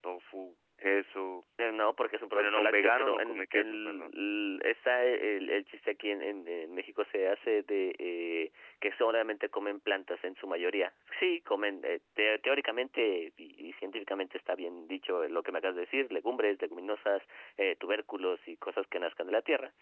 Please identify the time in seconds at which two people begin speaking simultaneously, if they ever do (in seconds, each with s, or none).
2.3 s